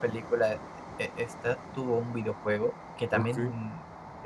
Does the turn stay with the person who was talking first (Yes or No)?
Yes